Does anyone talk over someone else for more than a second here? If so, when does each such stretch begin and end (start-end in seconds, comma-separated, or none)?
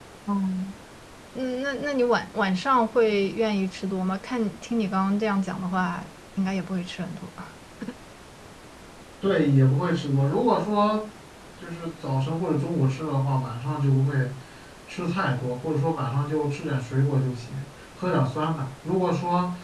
none